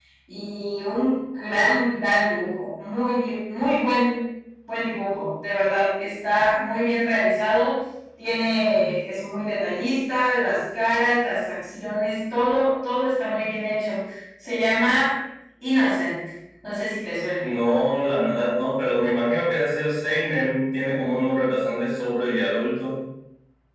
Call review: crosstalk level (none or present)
none